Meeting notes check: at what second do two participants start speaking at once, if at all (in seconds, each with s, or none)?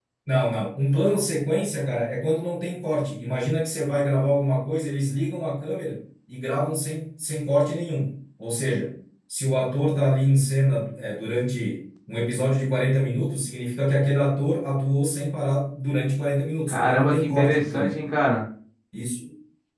16.7 s